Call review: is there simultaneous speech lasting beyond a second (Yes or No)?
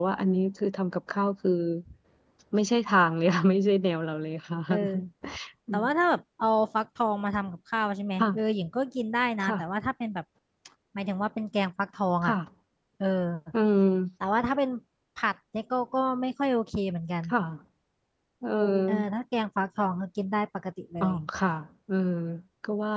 No